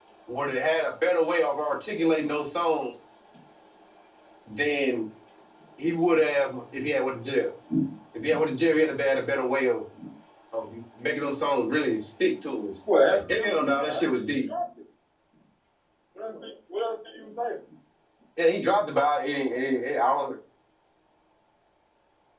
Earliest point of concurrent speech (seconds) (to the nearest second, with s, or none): 13 s